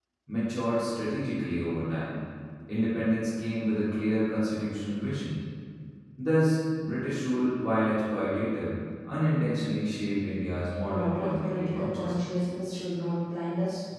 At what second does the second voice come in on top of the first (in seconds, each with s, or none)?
10.8 s